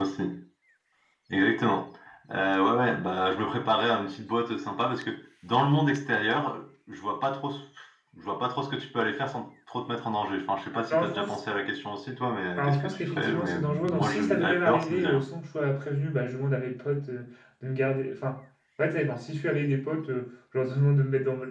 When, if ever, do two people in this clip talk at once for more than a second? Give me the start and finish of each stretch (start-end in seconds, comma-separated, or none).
12.6-15.2